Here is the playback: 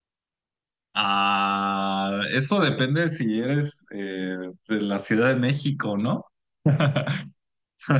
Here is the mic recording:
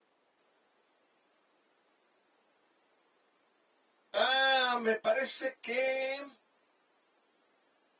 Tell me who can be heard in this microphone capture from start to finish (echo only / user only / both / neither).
user only